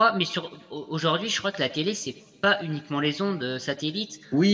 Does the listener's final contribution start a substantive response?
Yes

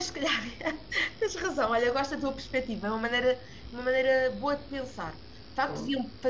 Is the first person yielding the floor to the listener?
No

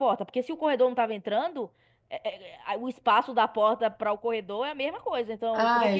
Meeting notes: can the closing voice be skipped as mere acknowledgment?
No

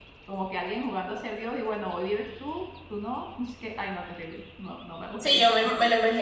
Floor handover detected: Yes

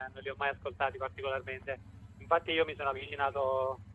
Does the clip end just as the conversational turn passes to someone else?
No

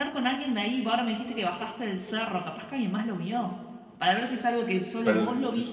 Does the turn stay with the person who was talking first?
No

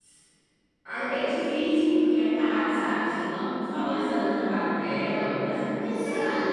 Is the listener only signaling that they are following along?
No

